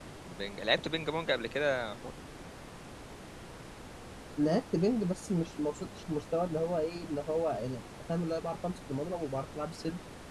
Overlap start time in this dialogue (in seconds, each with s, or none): none